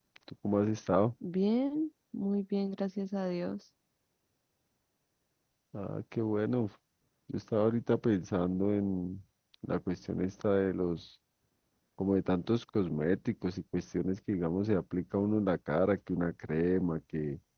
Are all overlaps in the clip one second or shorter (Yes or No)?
Yes